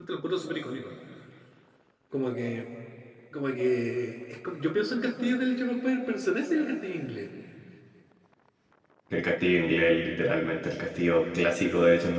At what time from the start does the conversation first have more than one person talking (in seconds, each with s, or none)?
none